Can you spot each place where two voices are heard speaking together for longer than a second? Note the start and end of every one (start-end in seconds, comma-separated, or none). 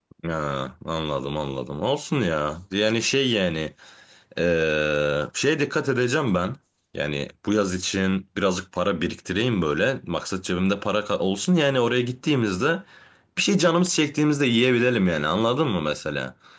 none